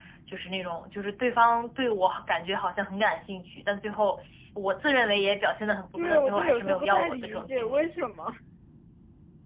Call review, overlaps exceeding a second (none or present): present